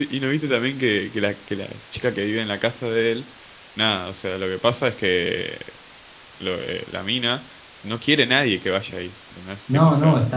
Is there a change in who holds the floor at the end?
Yes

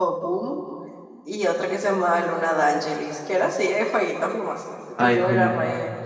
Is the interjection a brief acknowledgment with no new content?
Yes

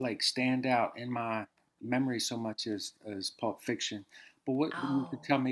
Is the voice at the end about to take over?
No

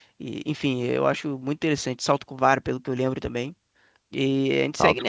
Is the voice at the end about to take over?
Yes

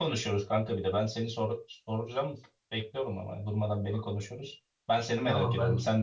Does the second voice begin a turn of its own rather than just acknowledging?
Yes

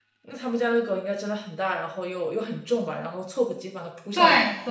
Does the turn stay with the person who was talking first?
No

